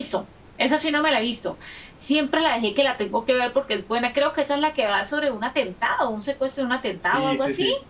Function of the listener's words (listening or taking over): taking over